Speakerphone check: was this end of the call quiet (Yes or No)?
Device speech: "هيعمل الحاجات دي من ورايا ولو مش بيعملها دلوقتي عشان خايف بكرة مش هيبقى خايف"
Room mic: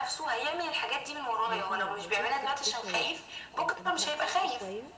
No